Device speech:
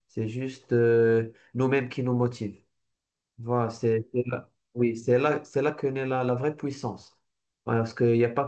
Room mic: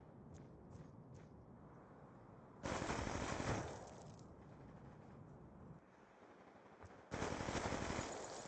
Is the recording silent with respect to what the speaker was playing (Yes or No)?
Yes